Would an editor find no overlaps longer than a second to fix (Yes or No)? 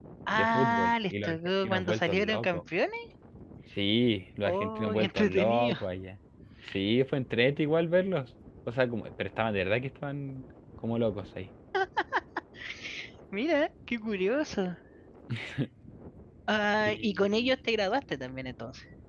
No